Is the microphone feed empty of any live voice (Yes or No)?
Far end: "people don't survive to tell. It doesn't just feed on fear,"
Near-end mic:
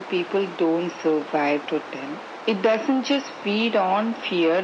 Yes